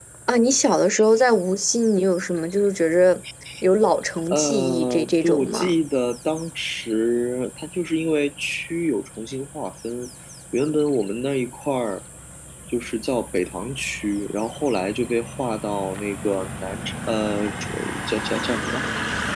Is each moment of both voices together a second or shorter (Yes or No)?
No